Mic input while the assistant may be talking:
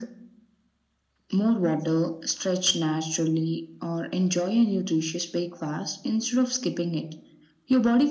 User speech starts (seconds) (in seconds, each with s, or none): none